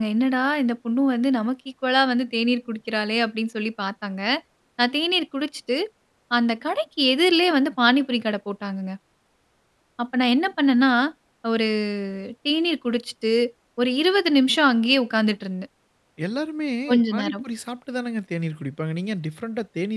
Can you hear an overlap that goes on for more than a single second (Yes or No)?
No